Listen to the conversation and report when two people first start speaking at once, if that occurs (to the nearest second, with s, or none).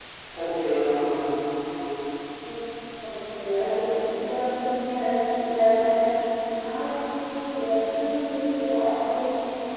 none